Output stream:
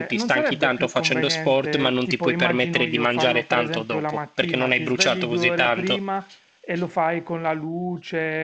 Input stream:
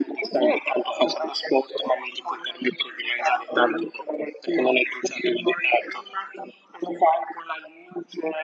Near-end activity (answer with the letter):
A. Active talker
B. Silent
B